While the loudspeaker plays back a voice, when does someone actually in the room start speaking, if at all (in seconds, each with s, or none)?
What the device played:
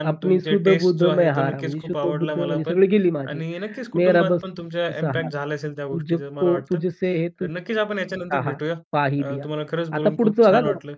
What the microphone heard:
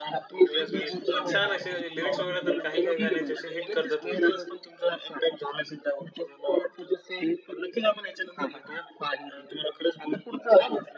0.5 s